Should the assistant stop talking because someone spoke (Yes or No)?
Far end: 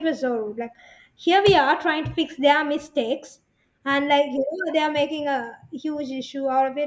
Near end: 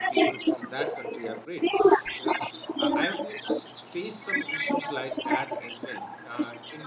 Yes